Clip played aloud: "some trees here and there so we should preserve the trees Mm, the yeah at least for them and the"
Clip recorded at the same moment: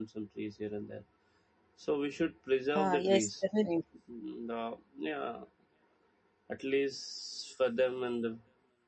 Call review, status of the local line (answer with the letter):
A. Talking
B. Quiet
A